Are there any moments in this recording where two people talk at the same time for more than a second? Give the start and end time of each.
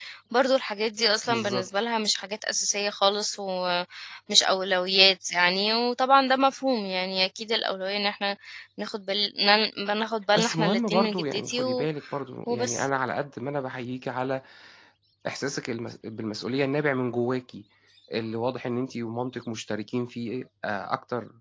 10.3-11.9

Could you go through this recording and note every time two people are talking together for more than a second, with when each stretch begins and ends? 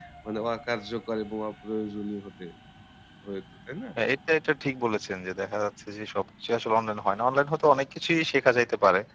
none

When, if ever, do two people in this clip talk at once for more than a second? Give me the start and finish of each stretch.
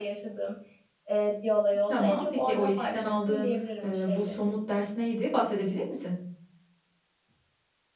1.9-4.4

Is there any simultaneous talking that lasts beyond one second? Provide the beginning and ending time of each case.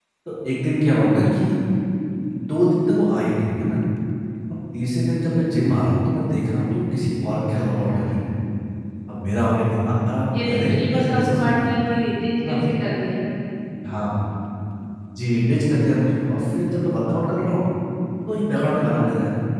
10.3-11.7

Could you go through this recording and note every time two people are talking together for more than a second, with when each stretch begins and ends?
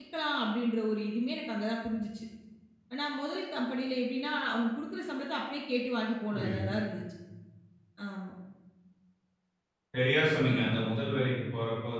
none

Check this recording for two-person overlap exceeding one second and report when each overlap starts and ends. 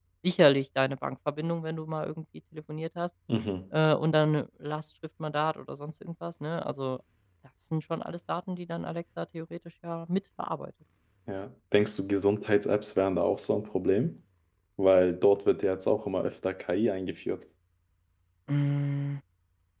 none

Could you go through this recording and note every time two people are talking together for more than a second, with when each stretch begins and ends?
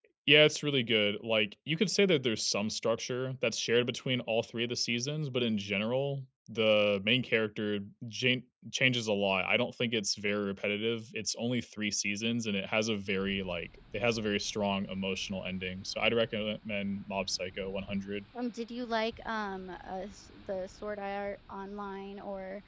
none

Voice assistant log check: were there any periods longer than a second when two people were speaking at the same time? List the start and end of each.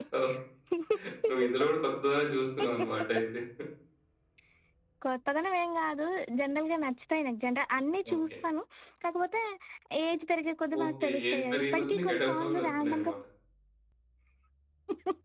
10.8-13.1

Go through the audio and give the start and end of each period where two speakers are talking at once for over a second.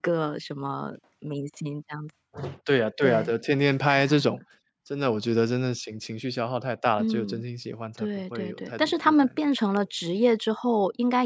8.0-9.3

